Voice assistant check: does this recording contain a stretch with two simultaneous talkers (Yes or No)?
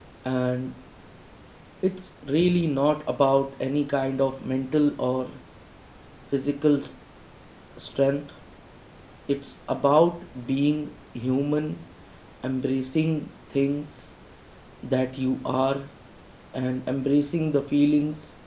No